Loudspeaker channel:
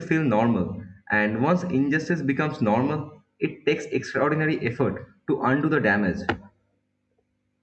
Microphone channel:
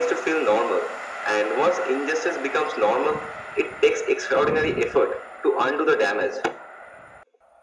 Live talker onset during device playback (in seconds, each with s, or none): none